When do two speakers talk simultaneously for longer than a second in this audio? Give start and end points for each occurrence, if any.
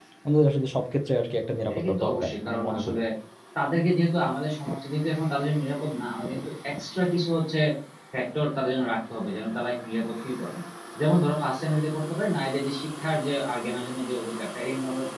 1.7-3.0

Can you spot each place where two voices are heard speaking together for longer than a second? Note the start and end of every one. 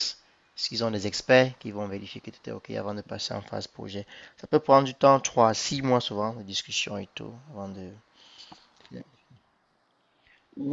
none

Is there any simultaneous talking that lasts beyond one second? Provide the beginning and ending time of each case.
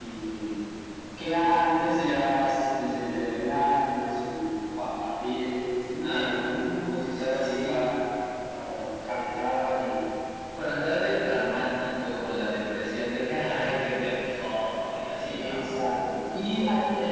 6.1-7.9

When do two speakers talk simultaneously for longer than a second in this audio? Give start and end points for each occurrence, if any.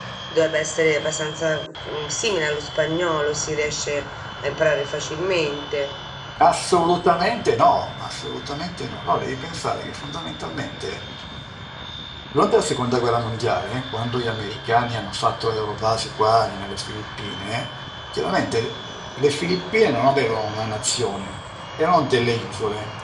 none

